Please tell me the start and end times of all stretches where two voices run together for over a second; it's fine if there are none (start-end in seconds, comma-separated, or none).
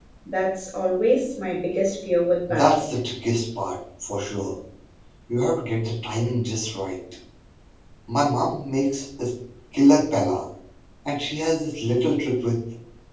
none